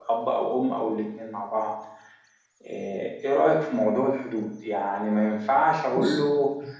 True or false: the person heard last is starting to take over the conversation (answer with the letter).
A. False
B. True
A